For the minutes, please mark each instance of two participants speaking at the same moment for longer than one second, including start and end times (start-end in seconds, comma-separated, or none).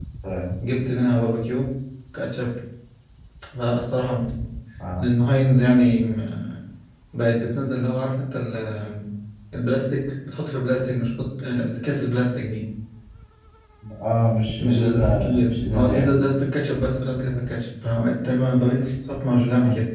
14.6-16.1